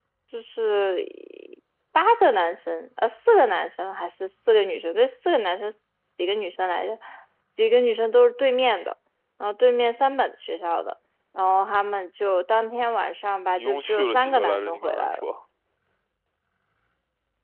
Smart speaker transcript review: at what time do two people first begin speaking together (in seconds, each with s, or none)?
13.6 s